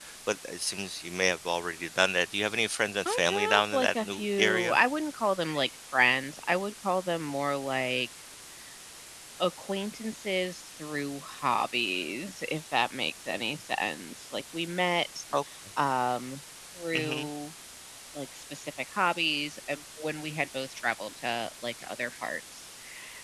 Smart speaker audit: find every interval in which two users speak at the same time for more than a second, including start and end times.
3.0-4.8

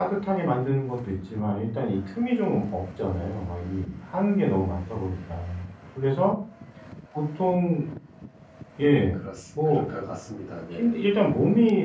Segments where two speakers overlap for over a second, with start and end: none

